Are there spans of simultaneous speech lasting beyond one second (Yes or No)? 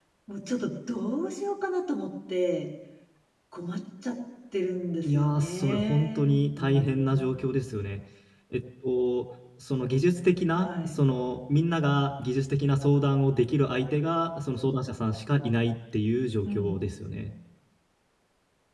Yes